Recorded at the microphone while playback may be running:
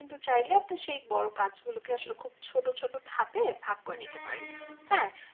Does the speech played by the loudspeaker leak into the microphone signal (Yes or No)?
No